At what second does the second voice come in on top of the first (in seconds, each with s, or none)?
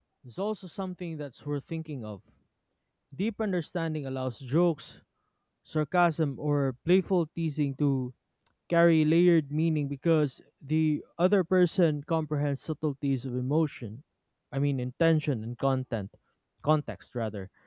none